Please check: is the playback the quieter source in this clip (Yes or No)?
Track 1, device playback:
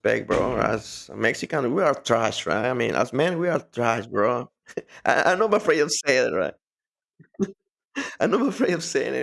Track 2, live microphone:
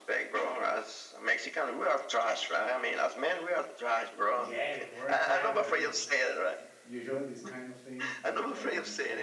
No